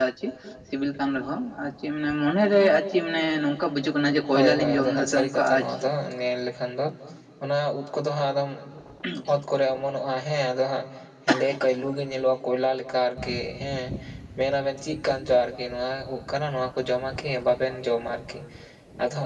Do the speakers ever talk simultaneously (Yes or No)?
Yes